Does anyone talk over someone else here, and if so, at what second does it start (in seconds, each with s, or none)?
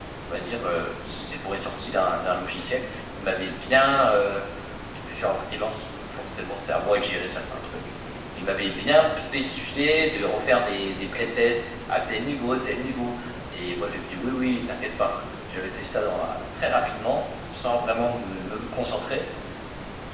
none